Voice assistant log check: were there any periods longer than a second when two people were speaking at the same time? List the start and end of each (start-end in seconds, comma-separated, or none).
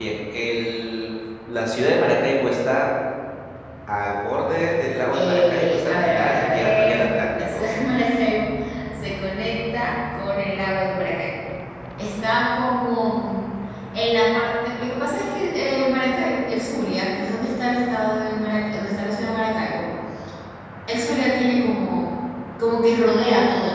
5.1-7.8